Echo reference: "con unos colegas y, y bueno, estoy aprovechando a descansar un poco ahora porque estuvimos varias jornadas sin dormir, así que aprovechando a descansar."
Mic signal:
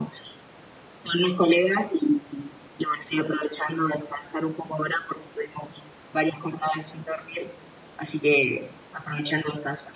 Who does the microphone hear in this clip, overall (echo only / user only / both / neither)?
echo only